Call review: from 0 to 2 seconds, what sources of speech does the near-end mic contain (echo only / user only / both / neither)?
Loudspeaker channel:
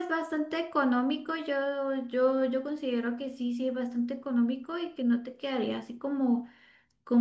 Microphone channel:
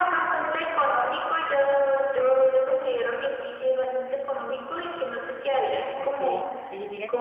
echo only